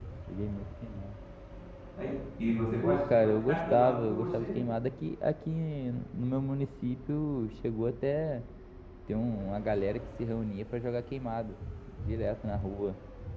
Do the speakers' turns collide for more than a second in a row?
Yes, from 2.8 s

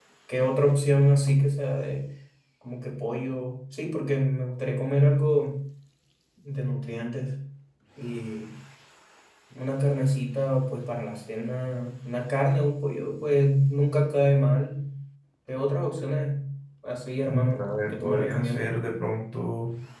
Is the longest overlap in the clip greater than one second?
Yes, from 17.3 s

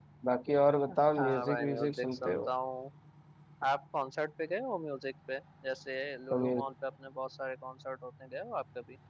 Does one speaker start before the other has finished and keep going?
Yes, from 1.2 s

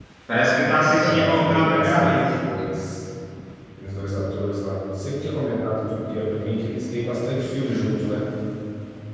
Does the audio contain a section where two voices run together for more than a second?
Yes, from 1.0 s

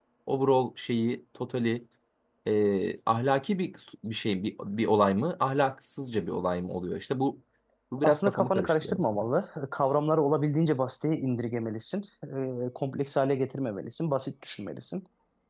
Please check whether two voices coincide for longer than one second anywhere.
Yes, from 8.0 s

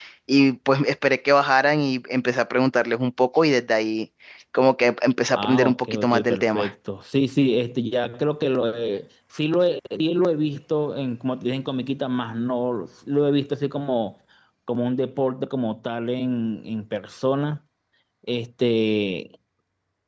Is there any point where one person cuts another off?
Yes, from 5.4 s

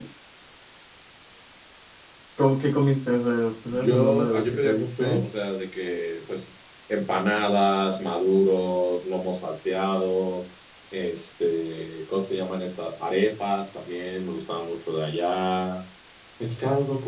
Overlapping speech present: Yes, from 3.7 s

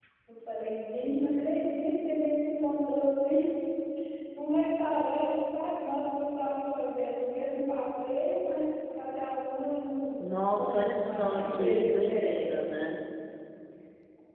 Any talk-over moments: Yes, from 10.2 s

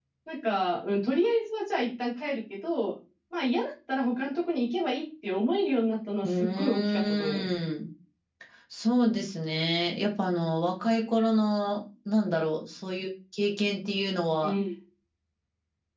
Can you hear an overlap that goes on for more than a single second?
Yes, from 6.2 s

